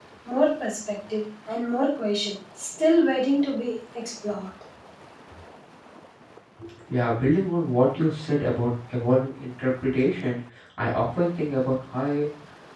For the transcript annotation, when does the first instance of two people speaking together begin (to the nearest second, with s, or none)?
none